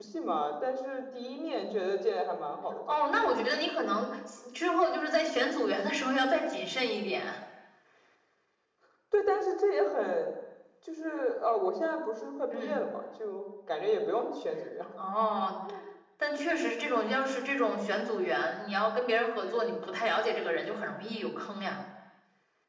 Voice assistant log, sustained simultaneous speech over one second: none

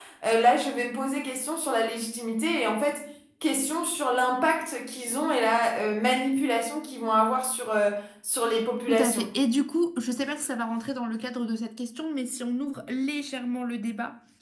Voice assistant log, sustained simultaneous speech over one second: none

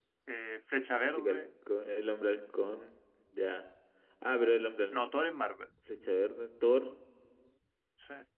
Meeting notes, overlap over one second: none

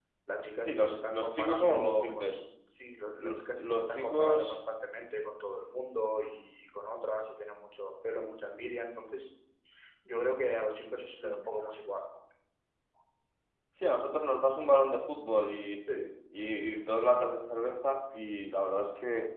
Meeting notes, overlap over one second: present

